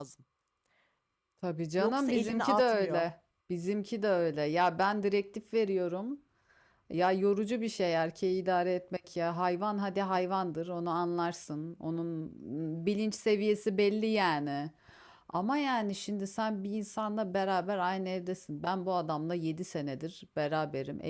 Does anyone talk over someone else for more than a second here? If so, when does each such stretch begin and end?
1.8-3.0

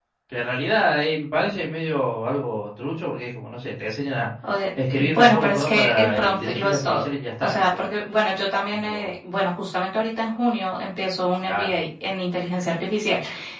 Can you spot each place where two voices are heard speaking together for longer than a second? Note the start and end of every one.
4.9-7.0

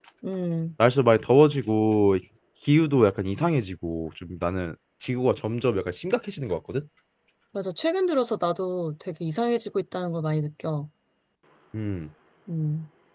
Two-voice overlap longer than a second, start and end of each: none

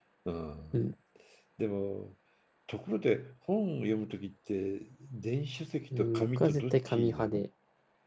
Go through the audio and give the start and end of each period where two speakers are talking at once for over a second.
6.0-7.4

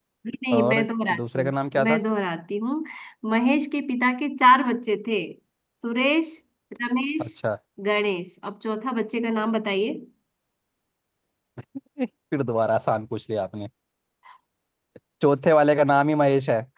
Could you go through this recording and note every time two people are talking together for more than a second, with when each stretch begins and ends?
0.5-2.0

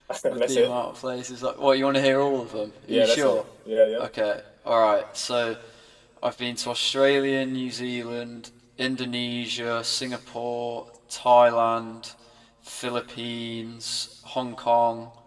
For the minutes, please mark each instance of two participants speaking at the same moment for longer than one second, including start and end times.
none

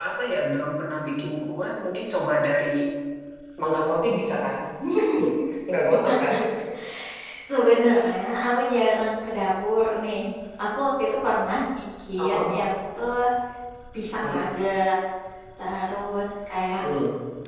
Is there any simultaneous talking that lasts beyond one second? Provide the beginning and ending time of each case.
none

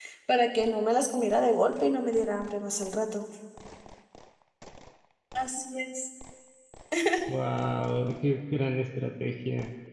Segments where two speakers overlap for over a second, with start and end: none

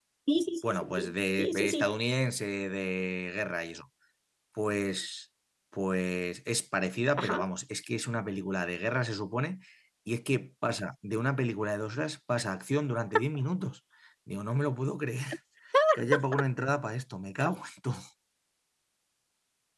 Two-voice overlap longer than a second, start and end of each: 0.6-1.9

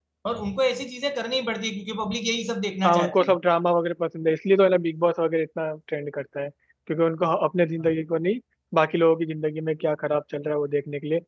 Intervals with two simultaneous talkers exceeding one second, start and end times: none

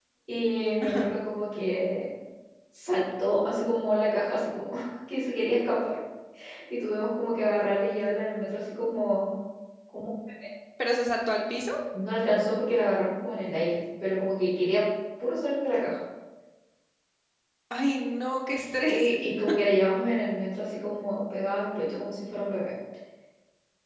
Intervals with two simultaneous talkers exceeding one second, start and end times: none

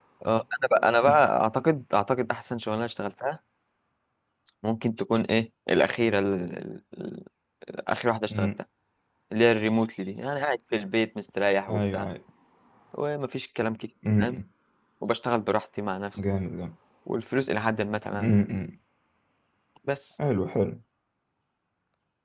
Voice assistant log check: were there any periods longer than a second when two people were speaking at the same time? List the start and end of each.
none

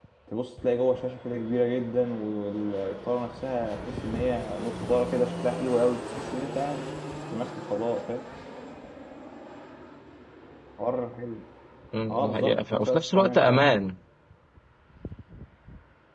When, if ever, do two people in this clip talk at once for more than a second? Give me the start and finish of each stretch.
12.1-13.6

